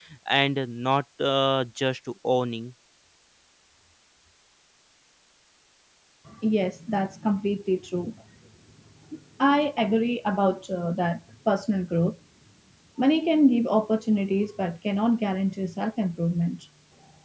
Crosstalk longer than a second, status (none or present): none